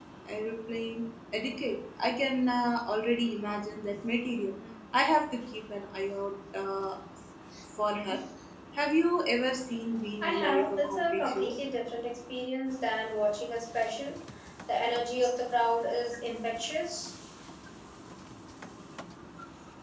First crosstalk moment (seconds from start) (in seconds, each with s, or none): 10.2 s